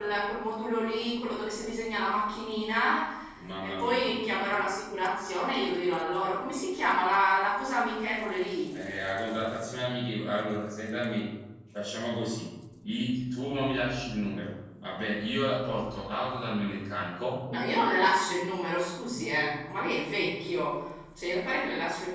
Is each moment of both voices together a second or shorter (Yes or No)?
Yes